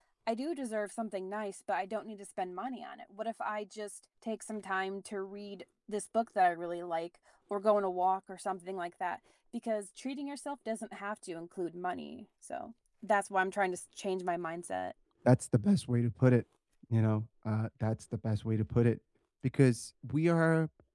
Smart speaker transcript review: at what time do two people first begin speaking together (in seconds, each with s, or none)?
none